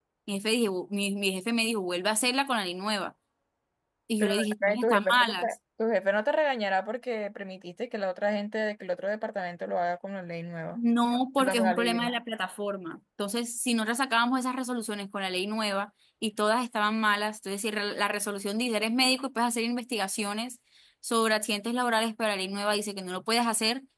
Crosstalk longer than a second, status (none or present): present